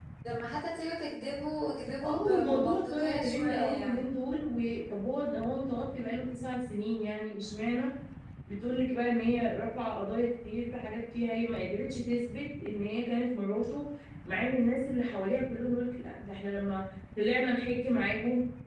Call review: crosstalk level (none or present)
present